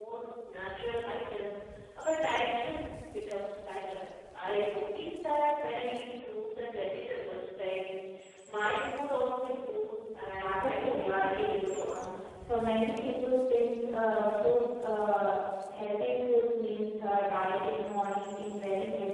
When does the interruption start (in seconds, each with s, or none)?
10.4 s